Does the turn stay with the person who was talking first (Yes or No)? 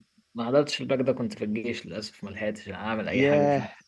No